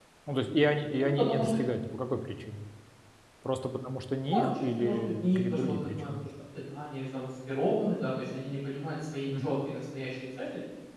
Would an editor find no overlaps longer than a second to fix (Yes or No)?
No